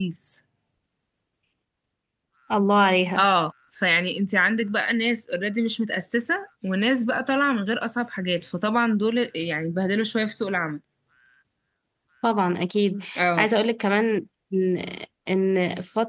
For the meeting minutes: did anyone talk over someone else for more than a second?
No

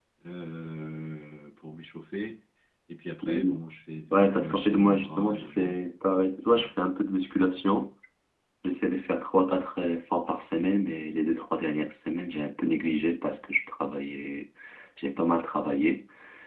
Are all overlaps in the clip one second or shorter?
No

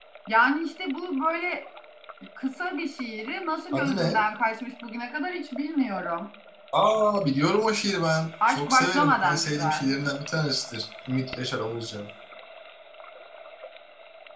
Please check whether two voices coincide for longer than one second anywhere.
Yes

